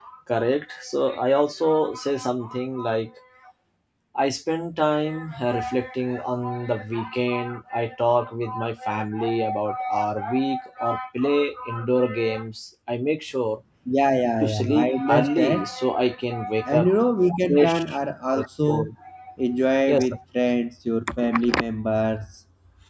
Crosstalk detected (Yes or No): Yes